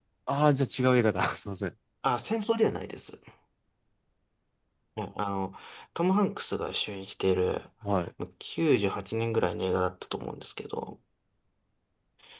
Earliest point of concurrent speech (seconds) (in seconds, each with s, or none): none